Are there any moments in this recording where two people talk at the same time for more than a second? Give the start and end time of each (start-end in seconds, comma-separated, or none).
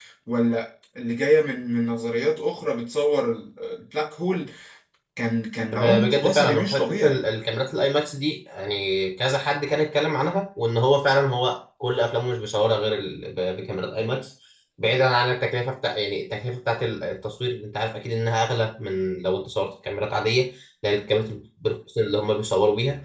5.7-7.2